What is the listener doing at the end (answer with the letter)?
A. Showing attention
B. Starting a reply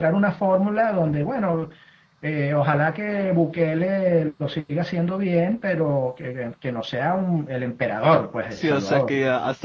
B